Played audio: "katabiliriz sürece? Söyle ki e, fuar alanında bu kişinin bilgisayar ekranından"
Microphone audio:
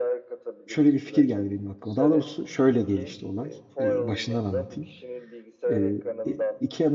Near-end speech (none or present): present